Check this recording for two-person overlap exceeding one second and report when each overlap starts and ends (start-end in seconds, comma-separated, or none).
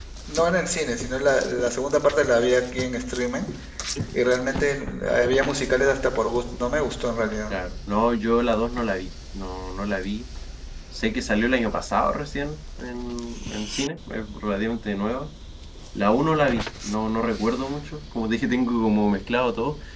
none